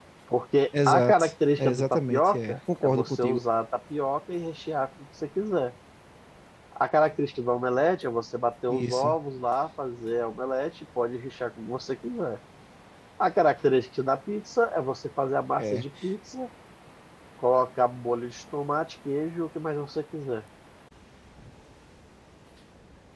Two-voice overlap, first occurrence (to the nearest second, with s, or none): 1 s